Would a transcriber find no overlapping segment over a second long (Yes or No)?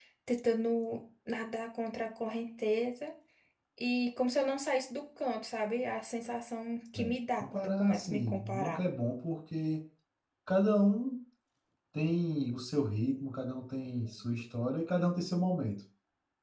No